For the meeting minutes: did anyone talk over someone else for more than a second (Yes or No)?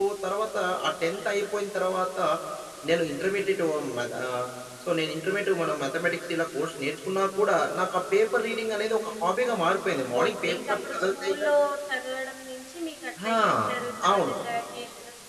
Yes